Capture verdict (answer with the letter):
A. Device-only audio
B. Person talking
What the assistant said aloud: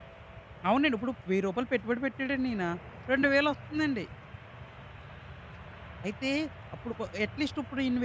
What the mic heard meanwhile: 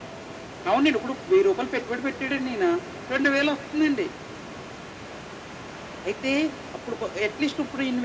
A